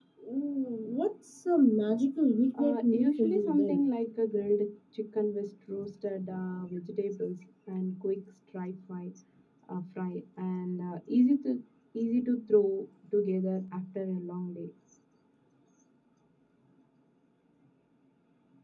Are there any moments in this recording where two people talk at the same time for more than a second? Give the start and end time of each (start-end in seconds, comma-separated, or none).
2.6-3.8